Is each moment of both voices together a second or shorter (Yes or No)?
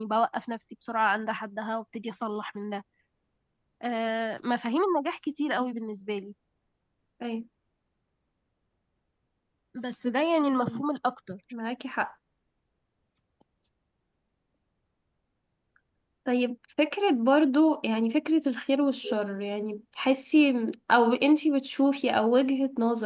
Yes